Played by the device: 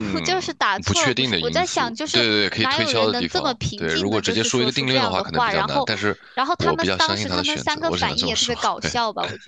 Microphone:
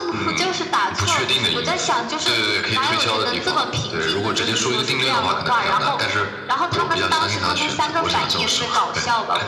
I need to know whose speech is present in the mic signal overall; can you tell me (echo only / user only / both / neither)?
echo only